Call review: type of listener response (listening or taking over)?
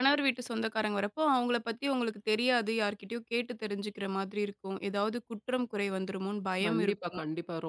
taking over